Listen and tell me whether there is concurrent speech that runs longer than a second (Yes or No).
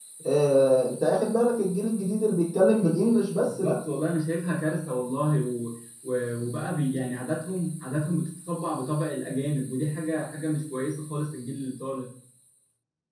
No